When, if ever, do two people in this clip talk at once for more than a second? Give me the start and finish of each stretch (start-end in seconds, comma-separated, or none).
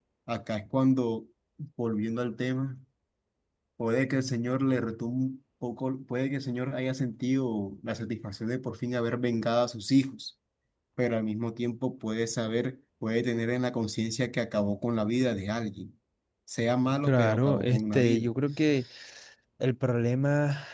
17.0-18.3